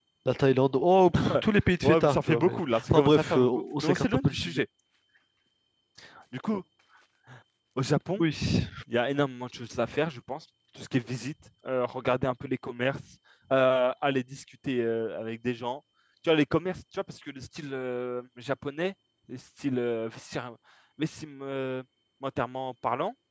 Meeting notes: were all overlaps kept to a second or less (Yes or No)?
No